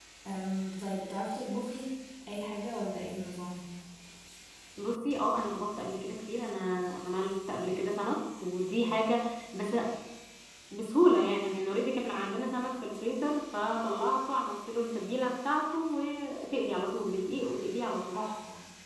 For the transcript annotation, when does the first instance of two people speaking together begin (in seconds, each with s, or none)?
none